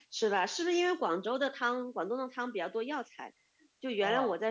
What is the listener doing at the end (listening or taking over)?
listening